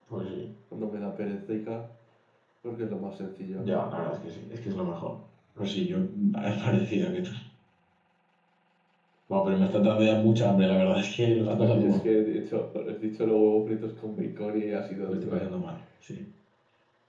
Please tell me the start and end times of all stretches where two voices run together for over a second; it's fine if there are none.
none

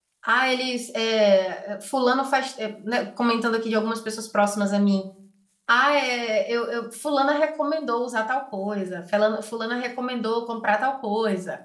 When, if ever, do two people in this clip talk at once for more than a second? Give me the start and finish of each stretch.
none

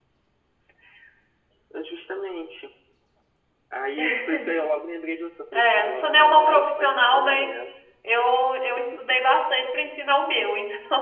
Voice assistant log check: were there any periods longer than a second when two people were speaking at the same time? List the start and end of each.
5.5-7.5

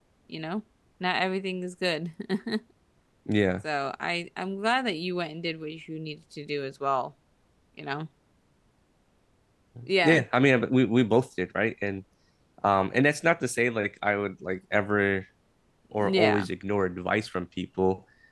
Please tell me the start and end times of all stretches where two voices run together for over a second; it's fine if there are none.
none

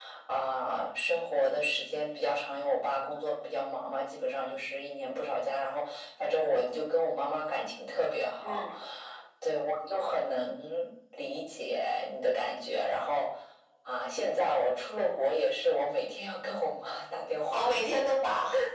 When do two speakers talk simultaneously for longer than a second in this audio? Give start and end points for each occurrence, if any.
none

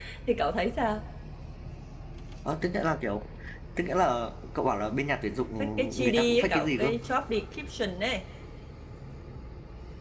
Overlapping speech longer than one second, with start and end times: 5.6-6.9

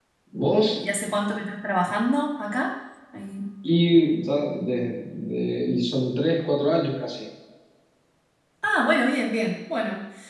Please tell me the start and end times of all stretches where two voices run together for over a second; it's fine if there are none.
none

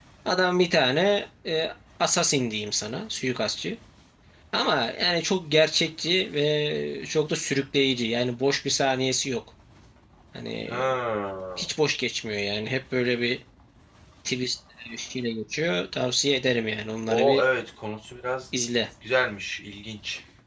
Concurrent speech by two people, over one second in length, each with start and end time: none

